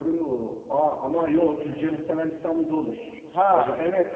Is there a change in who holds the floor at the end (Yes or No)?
Yes